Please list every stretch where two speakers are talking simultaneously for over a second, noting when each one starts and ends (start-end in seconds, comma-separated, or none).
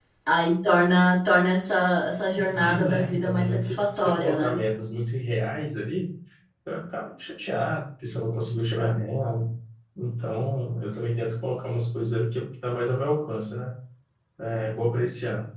2.5-4.6